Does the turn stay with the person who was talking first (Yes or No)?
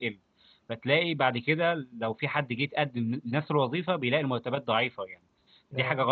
Yes